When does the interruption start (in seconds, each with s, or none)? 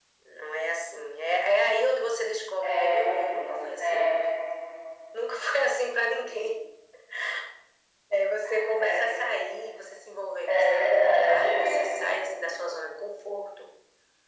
2.6 s